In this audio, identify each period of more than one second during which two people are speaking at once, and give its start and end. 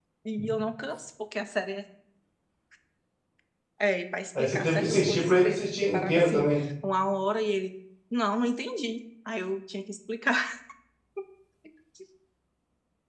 4.4-6.6

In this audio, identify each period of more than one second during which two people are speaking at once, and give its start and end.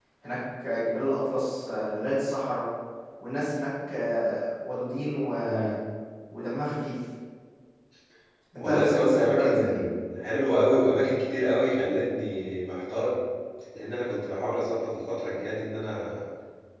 8.6-9.8

